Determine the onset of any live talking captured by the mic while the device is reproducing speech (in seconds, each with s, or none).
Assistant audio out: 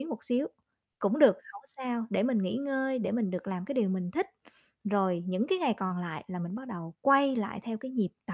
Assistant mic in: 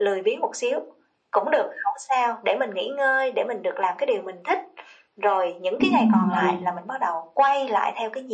5.8 s